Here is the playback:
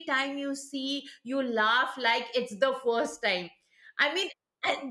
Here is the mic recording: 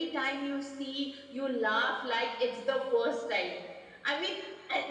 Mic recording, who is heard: echo only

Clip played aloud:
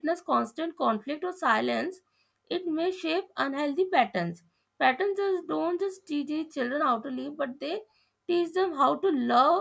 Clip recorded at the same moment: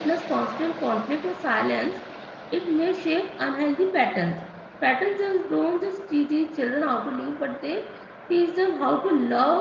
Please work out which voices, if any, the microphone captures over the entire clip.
echo only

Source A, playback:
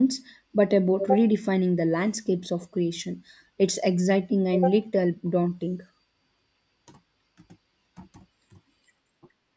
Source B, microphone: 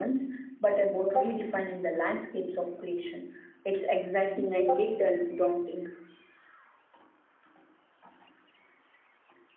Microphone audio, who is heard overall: echo only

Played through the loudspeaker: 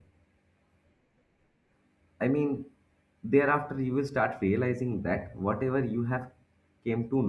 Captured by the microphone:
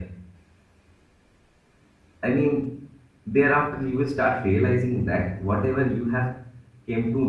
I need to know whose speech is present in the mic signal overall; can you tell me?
echo only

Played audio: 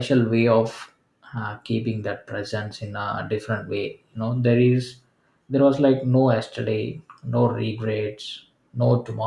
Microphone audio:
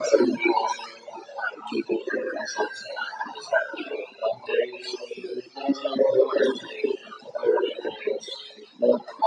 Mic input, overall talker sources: echo only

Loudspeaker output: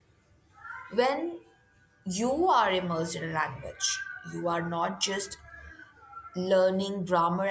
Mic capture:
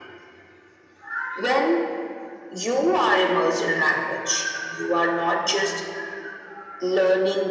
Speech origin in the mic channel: echo only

